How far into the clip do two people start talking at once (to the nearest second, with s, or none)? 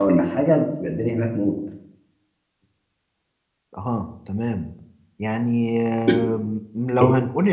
none